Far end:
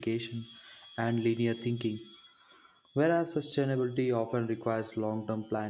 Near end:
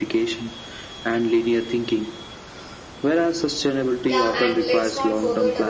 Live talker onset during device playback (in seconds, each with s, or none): 4.1 s